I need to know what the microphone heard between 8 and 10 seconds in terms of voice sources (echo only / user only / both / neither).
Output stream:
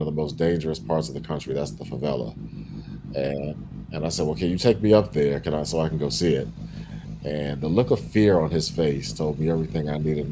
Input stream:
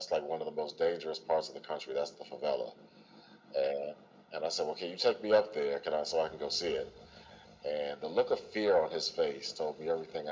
echo only